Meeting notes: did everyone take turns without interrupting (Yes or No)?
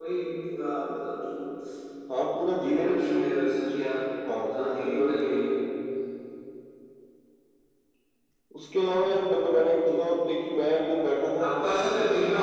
No